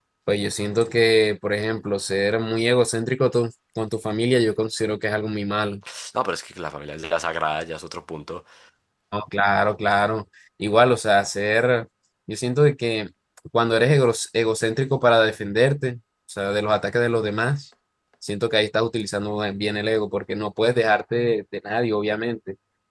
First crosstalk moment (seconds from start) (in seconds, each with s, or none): none